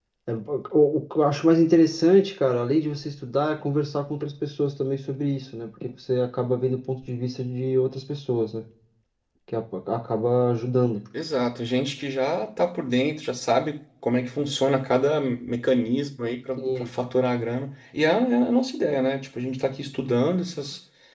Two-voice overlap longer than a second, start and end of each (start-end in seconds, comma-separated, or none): none